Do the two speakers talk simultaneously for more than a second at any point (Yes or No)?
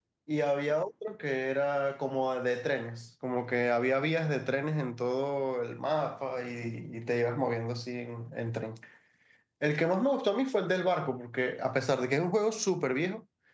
No